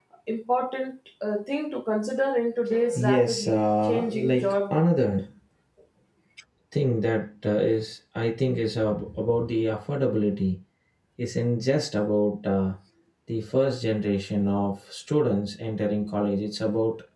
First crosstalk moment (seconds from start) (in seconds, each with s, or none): 2.7 s